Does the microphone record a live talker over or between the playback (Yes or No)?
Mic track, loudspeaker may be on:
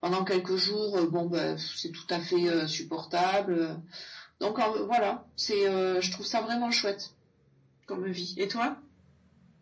Yes